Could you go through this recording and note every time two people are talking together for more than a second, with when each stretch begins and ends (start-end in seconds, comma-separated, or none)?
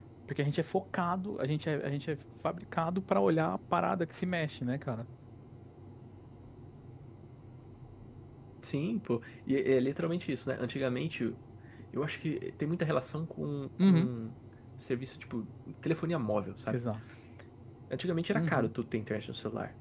none